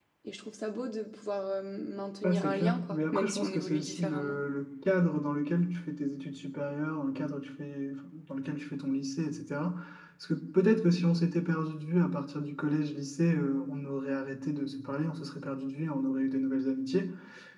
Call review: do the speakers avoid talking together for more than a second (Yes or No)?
No